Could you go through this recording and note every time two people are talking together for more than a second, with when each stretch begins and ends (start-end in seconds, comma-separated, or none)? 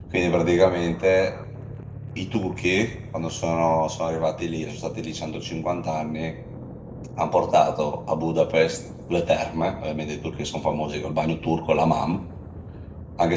none